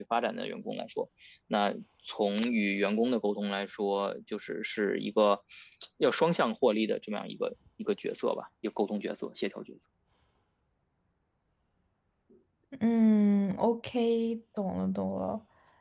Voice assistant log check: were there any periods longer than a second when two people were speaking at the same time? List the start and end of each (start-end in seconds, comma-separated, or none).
none